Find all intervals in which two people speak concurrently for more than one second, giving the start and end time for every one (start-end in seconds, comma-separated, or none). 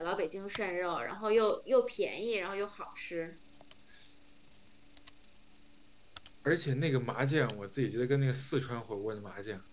none